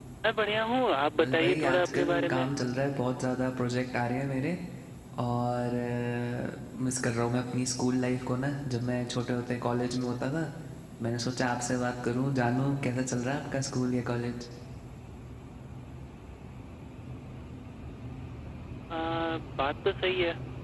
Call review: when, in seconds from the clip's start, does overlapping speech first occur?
1.2 s

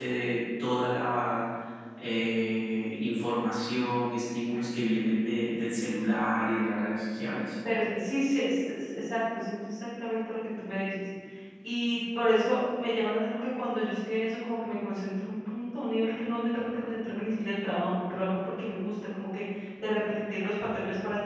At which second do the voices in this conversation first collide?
none

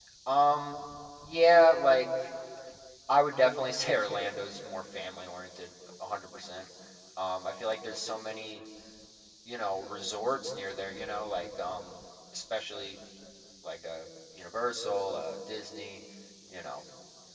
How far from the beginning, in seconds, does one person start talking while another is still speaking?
none

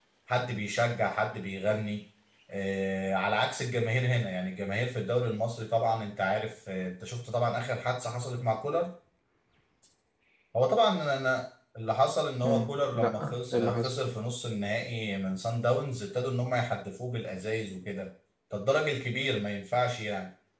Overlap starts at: 12.4 s

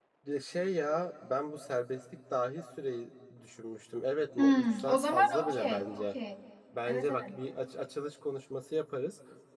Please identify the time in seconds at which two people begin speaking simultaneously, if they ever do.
4.4 s

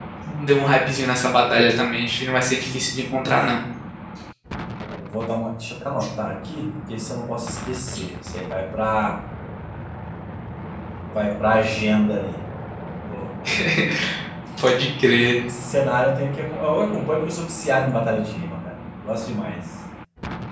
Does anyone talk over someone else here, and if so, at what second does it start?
none

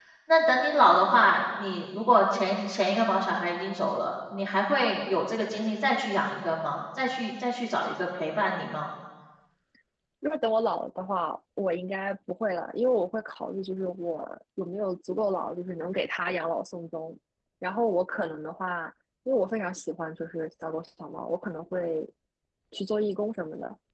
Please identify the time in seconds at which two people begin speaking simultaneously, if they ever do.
none

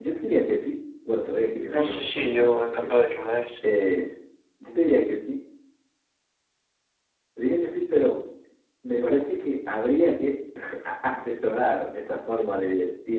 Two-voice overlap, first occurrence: 1.7 s

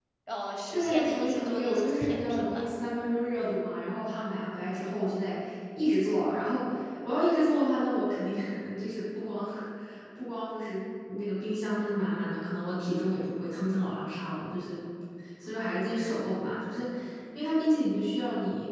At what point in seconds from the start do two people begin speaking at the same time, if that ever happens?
0.7 s

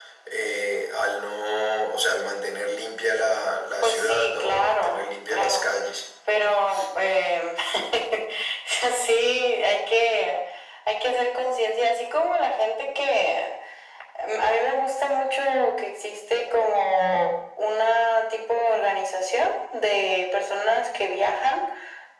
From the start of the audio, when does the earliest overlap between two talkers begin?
3.8 s

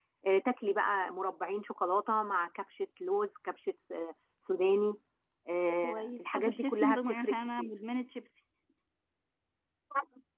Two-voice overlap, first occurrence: 5.8 s

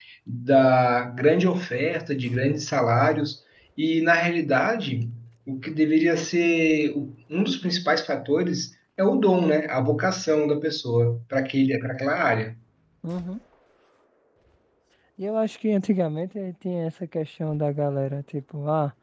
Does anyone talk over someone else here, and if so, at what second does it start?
none

